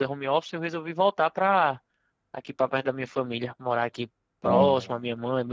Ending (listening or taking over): listening